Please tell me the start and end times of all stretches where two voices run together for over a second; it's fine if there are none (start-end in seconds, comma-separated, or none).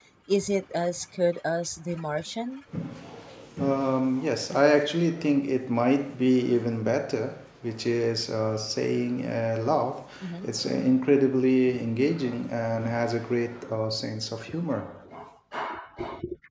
none